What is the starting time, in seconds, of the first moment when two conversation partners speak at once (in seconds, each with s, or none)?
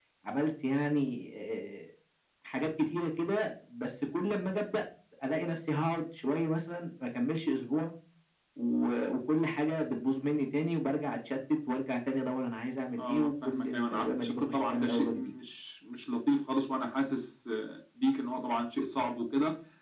13.0 s